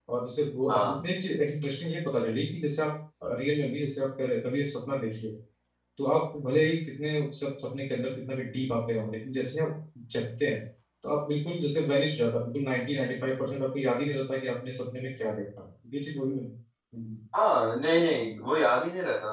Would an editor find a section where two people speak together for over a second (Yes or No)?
No